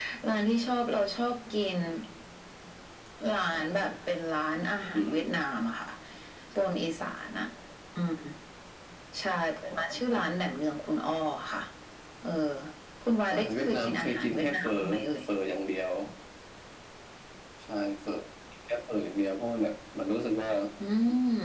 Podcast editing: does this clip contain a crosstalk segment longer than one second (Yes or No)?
Yes